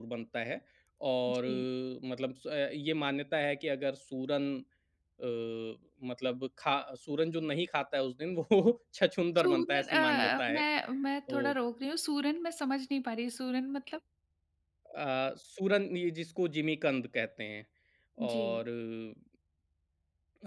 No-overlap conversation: No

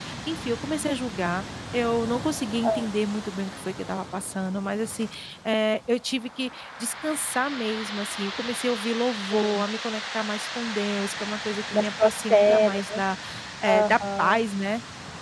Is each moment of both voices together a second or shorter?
No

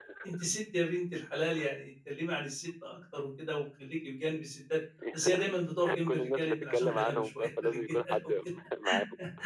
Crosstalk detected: Yes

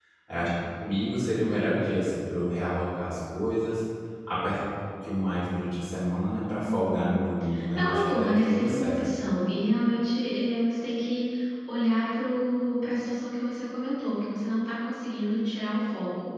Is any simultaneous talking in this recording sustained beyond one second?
Yes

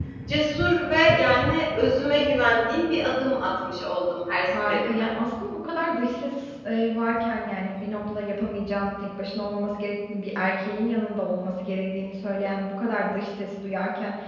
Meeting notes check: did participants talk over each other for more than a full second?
No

